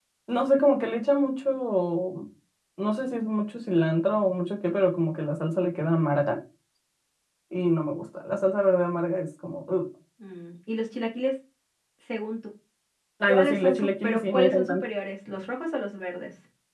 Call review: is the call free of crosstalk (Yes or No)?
No